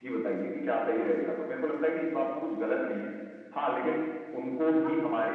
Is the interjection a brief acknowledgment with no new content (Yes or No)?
Yes